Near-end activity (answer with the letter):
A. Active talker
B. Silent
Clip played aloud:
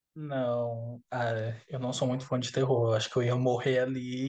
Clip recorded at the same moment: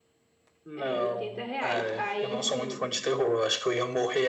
A